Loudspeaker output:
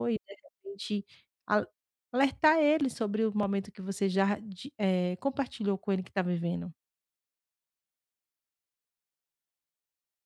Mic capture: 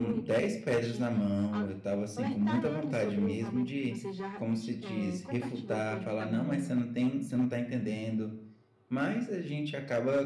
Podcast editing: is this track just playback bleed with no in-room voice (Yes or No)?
No